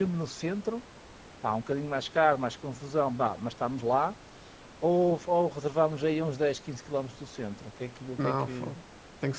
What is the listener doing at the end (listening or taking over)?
taking over